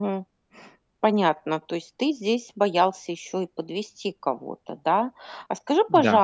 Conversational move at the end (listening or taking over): listening